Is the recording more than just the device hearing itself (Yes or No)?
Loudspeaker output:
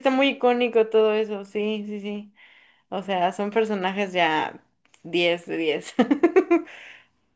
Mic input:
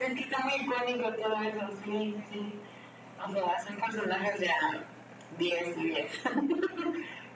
No